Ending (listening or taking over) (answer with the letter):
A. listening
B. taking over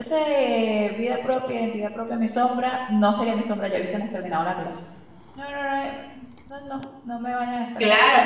B